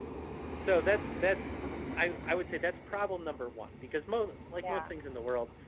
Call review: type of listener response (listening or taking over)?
listening